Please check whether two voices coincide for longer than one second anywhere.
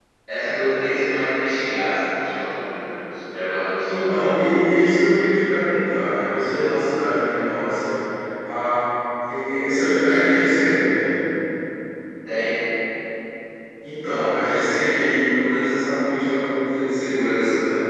No

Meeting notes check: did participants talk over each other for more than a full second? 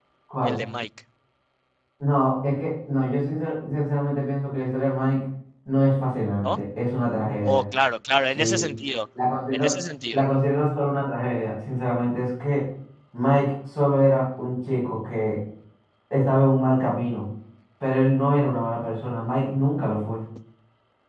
No

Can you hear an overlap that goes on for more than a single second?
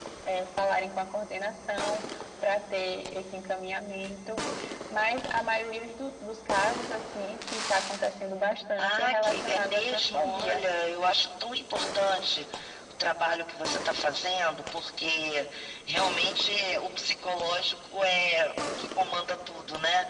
Yes, from 8.8 s

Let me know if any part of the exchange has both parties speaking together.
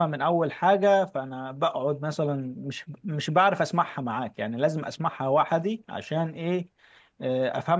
No

